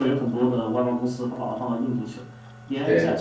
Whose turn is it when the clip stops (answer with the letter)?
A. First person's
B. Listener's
A